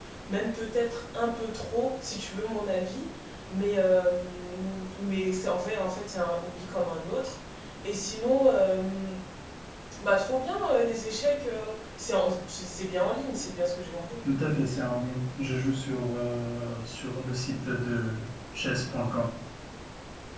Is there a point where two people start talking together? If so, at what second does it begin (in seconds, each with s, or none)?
none